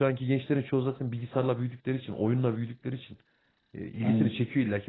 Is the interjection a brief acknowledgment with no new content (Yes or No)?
Yes